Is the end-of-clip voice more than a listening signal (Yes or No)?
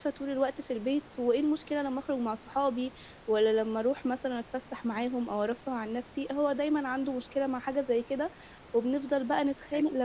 No